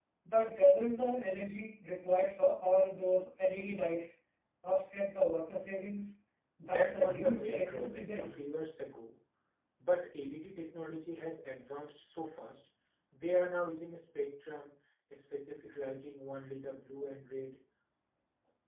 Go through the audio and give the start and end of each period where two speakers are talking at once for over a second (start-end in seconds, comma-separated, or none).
6.7-8.3